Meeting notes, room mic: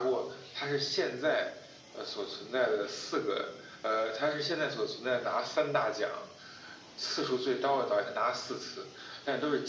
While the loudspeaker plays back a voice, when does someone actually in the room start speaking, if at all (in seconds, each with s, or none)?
none